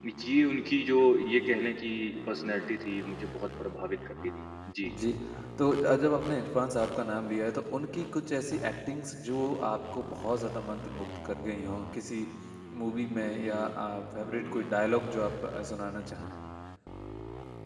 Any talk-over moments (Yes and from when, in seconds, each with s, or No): No